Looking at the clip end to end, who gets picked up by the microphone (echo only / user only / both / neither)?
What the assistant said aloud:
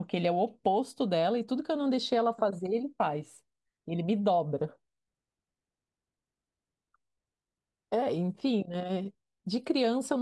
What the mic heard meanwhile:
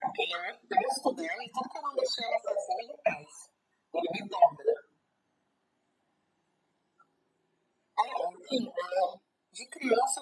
echo only